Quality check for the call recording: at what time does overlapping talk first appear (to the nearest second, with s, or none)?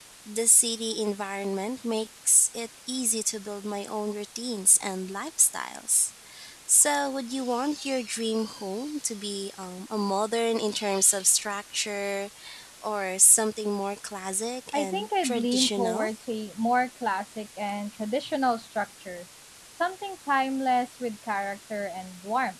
15 s